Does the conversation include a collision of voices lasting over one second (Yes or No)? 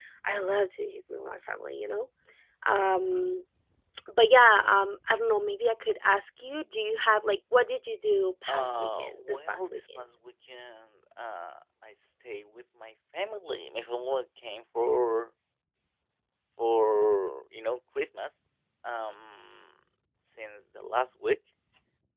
Yes